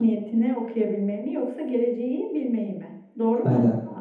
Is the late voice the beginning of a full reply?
Yes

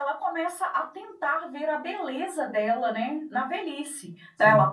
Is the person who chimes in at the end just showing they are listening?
Yes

